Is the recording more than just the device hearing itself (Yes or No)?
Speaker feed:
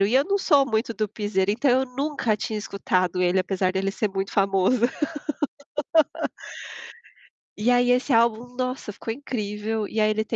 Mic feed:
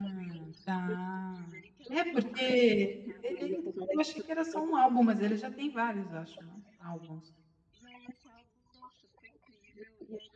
Yes